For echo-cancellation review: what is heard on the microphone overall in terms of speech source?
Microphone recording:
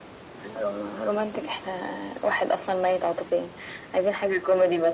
echo only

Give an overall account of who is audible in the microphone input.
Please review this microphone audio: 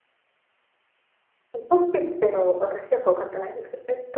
user only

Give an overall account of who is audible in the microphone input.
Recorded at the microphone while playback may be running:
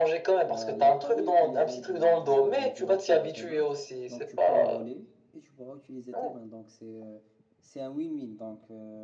both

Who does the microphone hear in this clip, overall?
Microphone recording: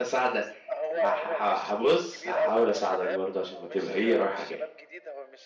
both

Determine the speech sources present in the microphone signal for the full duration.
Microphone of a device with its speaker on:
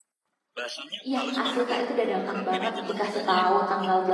both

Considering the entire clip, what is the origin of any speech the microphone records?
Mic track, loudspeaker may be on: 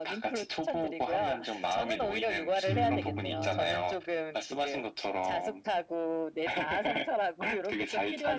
both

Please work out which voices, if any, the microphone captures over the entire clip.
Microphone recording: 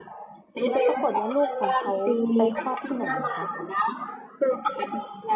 both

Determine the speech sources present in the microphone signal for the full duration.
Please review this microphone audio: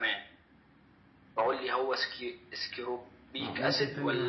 both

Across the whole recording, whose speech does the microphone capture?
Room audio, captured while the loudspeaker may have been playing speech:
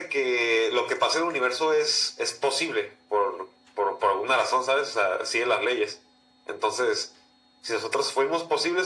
echo only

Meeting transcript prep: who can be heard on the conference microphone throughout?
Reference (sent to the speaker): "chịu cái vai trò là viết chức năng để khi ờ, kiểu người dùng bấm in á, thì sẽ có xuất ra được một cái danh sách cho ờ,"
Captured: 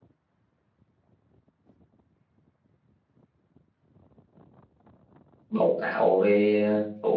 user only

